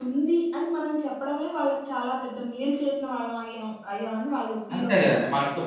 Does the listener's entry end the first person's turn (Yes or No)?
Yes